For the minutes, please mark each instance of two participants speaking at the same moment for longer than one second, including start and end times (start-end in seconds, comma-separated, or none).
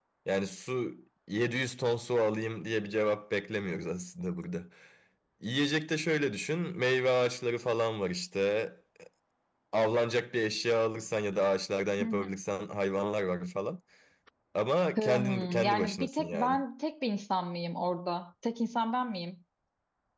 15.0-16.6